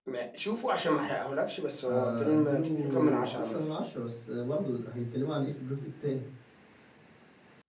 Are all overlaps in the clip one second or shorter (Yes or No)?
No